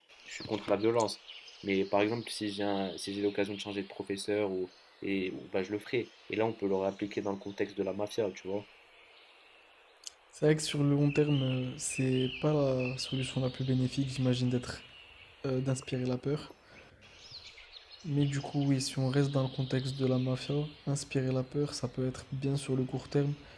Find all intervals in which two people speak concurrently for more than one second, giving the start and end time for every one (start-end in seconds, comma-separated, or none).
none